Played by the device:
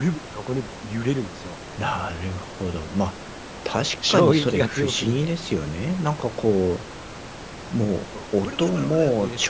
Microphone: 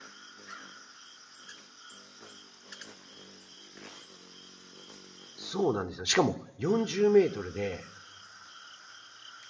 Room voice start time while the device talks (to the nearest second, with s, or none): 5 s